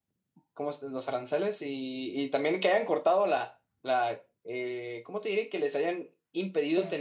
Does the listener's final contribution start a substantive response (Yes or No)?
No